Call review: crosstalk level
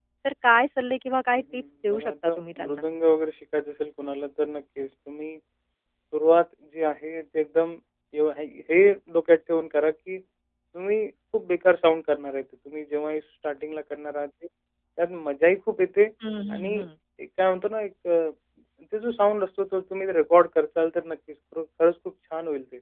present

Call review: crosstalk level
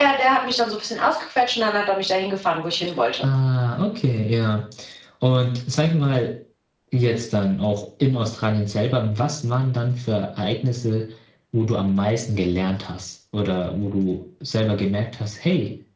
none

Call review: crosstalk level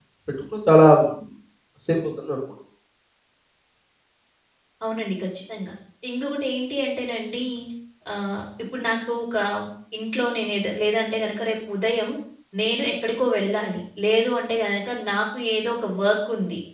none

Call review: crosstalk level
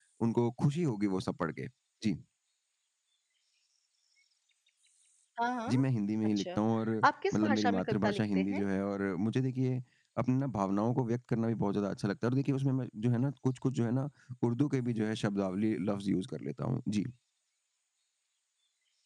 present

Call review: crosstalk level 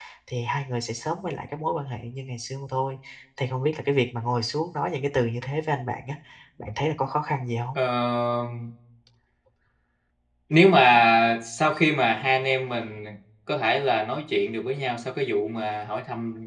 none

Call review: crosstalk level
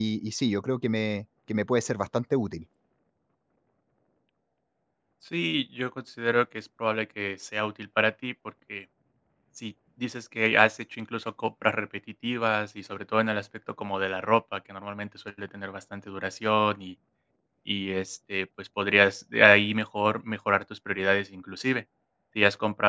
none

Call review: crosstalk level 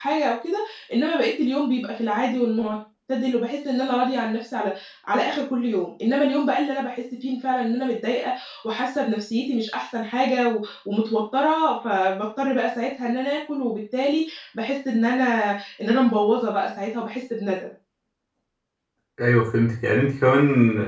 none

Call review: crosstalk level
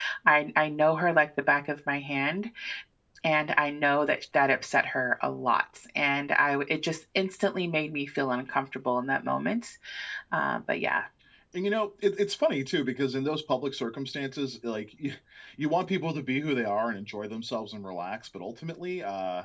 none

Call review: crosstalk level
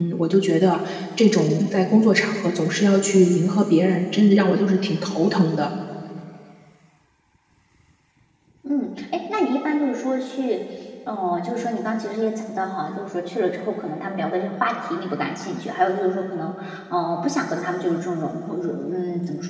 none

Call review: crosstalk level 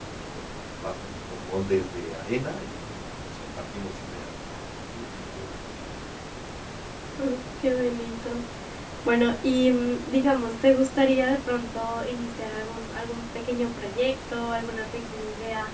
none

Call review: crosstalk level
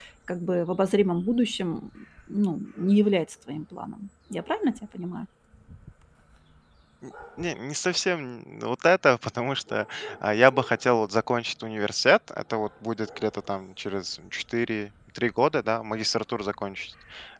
none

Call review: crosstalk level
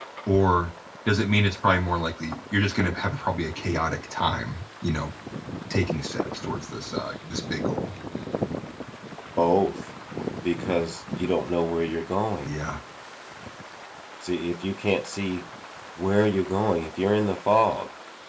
none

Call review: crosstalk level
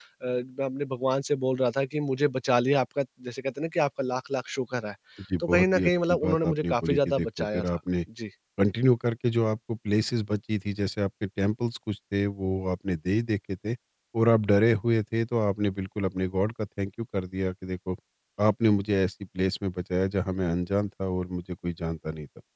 present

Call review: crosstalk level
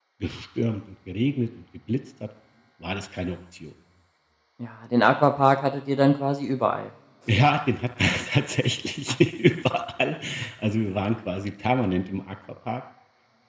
none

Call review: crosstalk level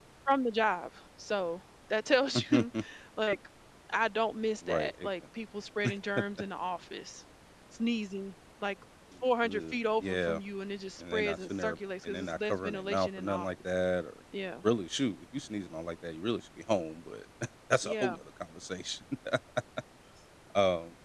present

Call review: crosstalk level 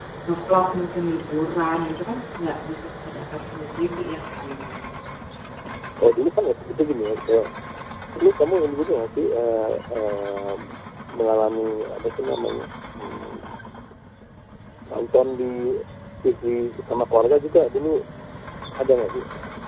present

